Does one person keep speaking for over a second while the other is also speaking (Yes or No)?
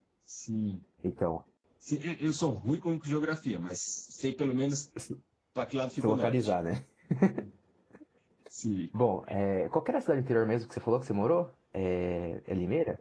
No